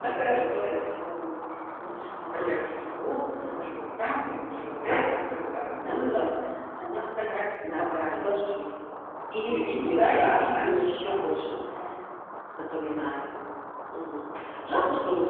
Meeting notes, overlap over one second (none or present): present